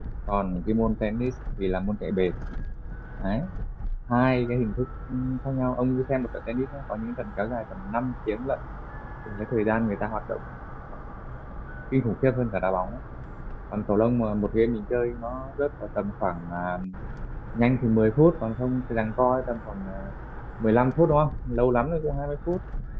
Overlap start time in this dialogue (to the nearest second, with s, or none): none